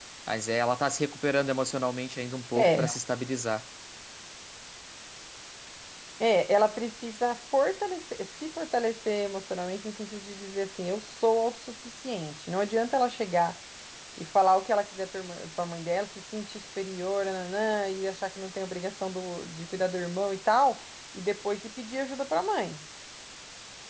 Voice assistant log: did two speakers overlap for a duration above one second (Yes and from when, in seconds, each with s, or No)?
No